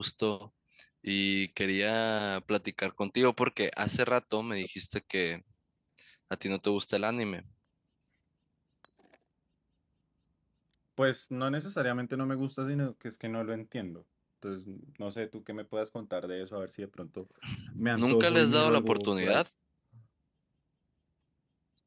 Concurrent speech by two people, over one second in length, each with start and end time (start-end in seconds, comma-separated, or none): 18.0-19.4